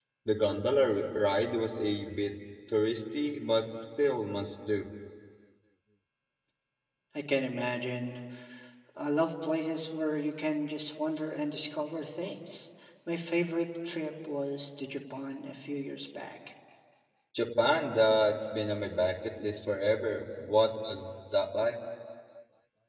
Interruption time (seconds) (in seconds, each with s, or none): none